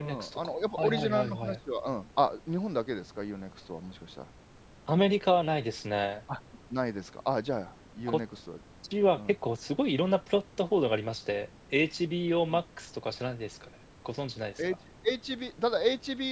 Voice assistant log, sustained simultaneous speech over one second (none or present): present